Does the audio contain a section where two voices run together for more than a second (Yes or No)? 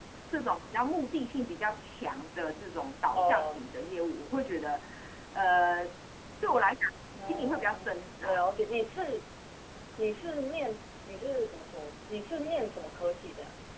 Yes